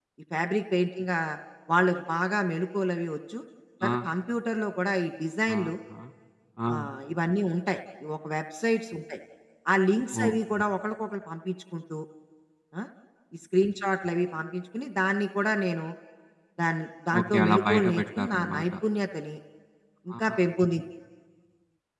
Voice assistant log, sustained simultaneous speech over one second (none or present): present